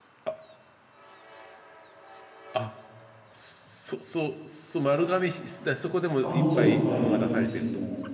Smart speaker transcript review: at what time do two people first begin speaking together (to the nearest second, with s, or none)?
6 s